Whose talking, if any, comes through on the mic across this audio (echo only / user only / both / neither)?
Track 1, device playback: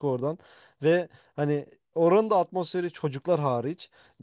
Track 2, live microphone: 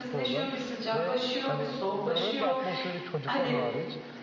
both